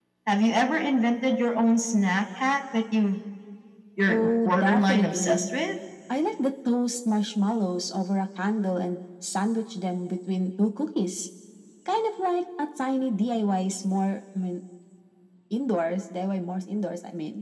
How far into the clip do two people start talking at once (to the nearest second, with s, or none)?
4 s